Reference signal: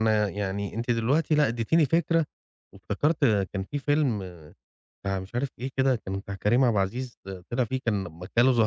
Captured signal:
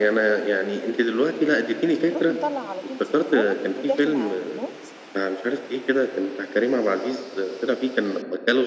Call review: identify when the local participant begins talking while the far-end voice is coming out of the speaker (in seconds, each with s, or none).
2.1 s